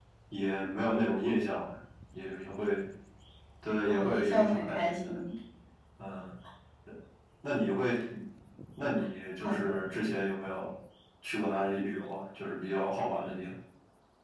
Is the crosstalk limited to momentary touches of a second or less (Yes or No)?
No